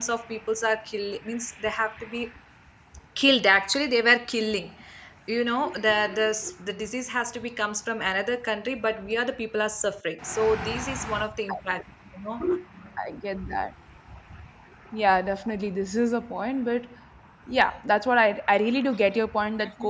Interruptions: none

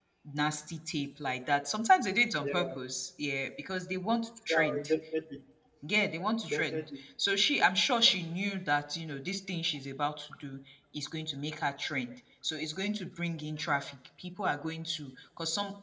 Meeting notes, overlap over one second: none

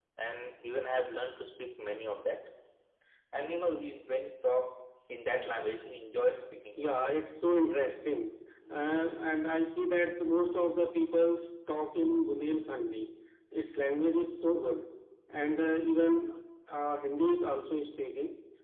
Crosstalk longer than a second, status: none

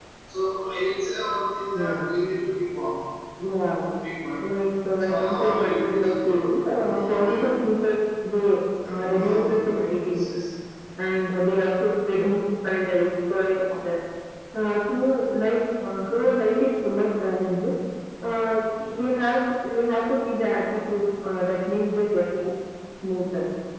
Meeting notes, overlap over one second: present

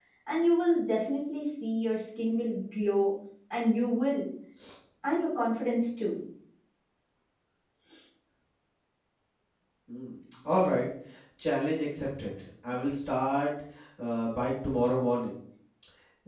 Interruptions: none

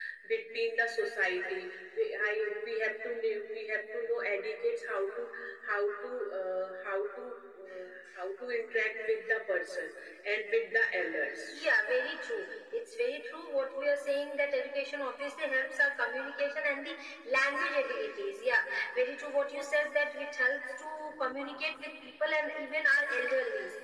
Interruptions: none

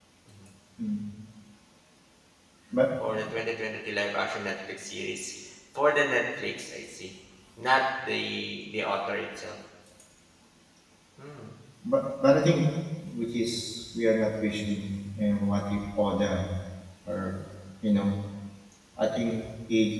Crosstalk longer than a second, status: none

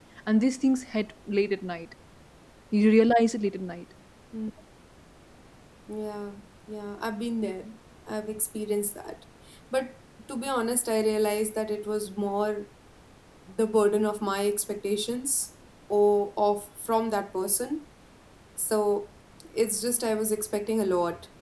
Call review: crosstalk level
none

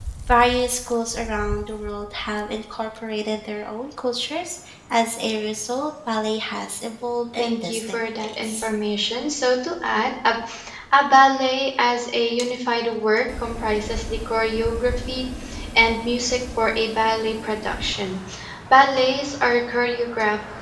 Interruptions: present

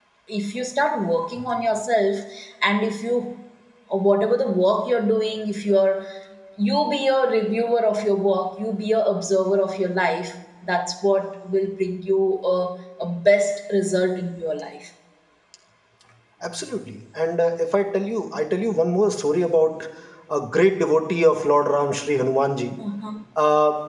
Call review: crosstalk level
none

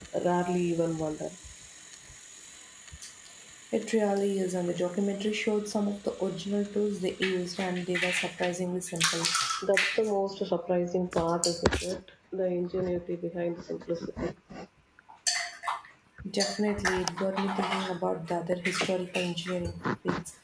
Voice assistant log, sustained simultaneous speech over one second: none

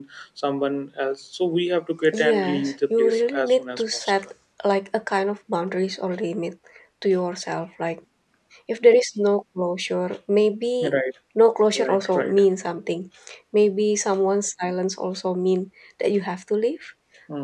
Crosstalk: present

